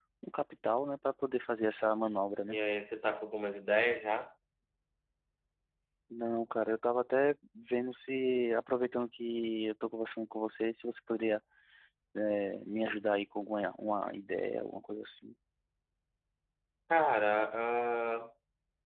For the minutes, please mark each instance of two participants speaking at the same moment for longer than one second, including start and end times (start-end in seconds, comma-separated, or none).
none